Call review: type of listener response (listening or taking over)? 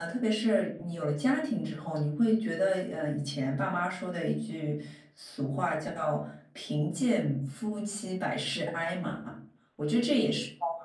listening